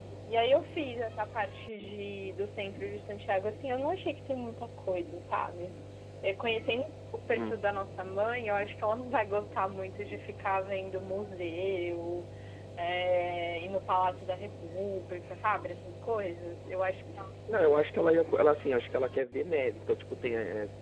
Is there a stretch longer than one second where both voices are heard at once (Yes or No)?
No